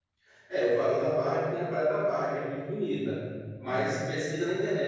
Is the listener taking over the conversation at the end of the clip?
No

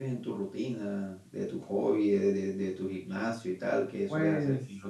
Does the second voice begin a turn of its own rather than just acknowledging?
Yes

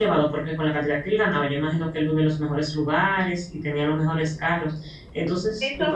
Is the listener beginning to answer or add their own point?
Yes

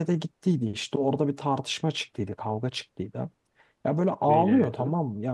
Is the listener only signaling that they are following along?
Yes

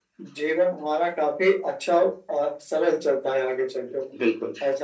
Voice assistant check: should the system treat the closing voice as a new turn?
Yes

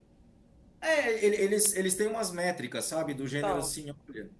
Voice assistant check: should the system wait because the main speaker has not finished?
Yes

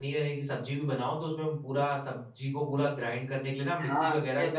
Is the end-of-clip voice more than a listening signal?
Yes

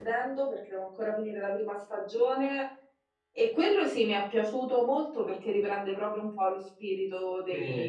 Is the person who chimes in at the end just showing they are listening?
No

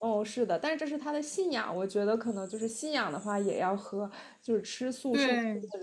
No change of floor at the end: Yes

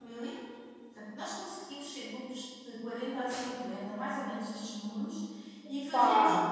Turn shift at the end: No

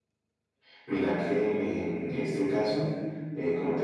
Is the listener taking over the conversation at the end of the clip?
No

